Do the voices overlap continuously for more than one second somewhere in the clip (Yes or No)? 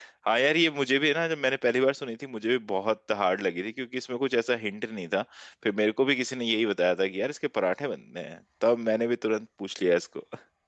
No